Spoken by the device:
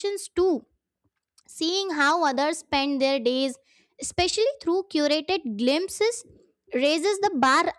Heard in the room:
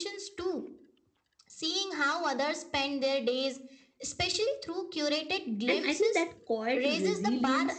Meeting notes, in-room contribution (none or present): present